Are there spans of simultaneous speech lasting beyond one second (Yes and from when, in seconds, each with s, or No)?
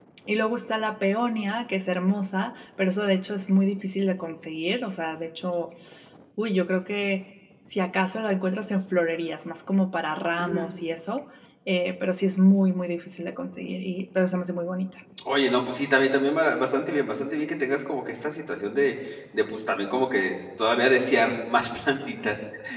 No